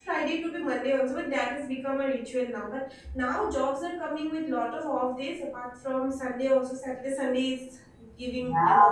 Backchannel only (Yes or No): Yes